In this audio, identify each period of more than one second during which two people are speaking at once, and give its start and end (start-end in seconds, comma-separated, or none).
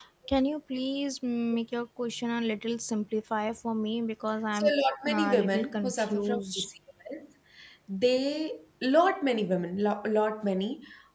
5.1-6.7